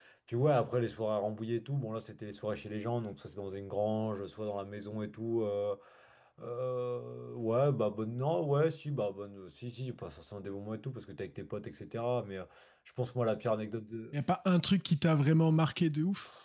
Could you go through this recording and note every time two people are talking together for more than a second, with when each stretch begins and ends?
none

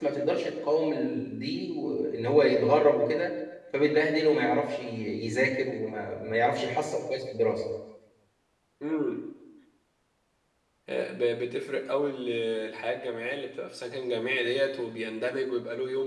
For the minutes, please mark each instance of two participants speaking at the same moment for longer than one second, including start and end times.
none

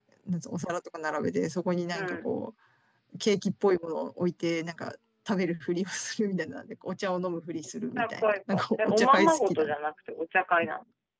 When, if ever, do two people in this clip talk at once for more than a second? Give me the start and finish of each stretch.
8.0-9.7

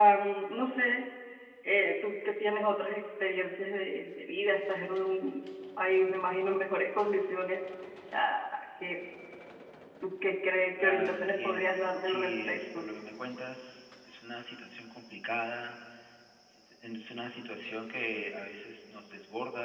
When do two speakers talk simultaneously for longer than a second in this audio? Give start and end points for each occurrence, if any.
10.8-12.9

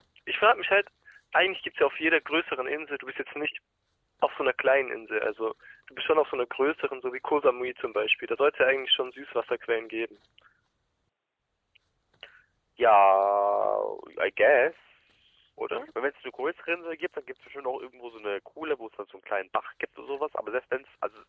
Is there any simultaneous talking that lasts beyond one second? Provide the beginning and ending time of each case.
none

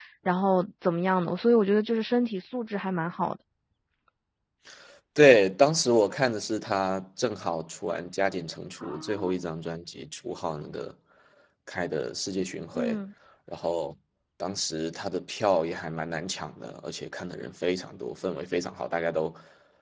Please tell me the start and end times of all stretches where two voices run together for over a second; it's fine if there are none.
none

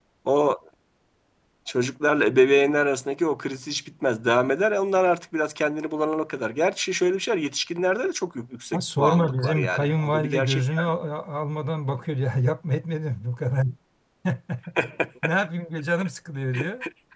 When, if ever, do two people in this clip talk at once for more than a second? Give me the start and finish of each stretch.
8.7-10.6

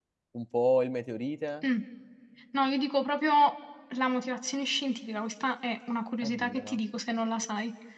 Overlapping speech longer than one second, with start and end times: none

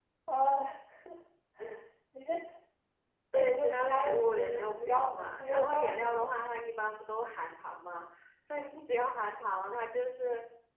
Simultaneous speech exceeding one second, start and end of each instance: 3.4-6.3

